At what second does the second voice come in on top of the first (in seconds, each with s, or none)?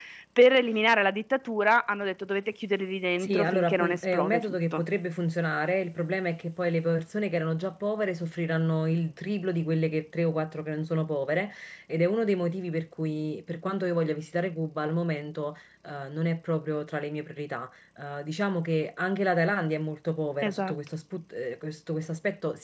3.2 s